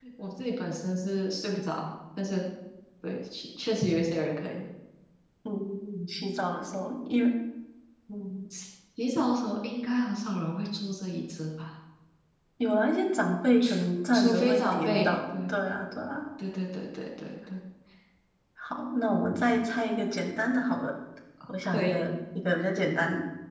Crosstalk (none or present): present